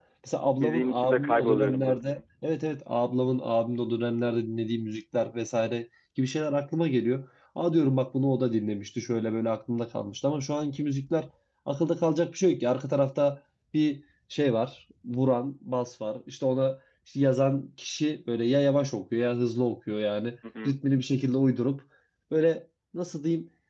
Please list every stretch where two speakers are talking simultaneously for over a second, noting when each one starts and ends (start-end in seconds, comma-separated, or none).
0.6-2.2